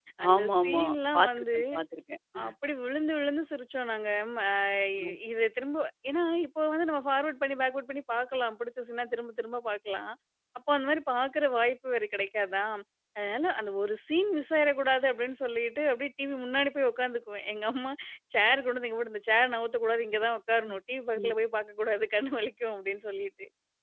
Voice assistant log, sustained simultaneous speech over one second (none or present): present